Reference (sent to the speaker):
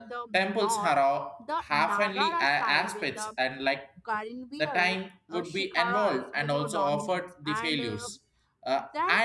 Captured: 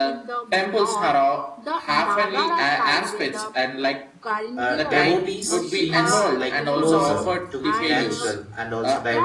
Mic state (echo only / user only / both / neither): both